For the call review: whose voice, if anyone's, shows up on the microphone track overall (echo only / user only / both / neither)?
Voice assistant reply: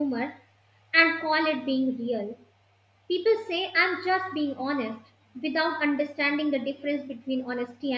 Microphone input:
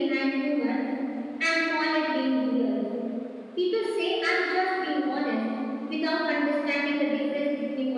echo only